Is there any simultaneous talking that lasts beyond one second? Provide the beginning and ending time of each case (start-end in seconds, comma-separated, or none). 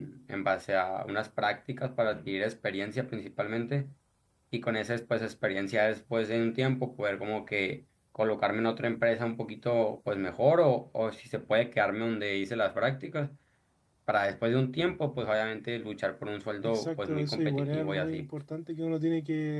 16.6-18.3